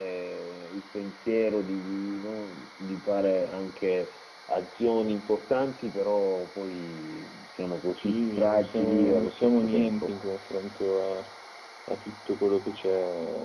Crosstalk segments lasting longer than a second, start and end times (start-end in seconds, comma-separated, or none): 8.0-10.1